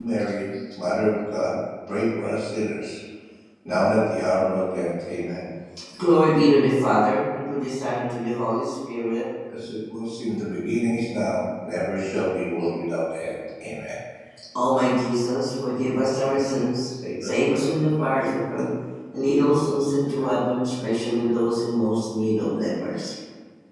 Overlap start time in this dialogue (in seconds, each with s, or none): none